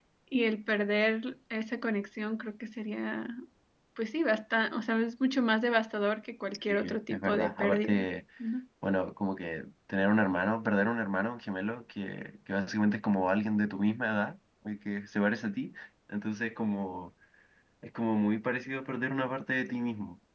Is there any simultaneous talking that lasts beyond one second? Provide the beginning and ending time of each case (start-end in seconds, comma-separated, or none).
6.7-8.1